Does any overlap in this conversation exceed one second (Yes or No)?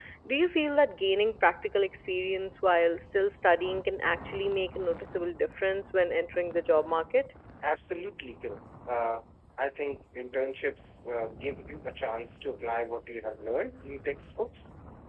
No